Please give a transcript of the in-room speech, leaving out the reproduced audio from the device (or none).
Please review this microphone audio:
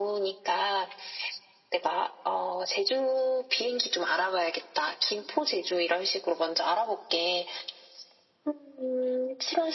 none